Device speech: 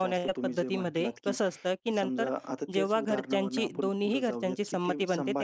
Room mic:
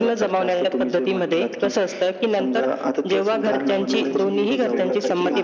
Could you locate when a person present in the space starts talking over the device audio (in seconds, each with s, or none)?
3.5 s